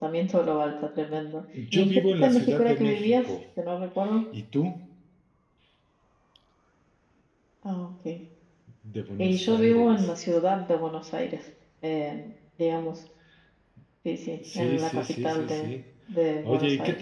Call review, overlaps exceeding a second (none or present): present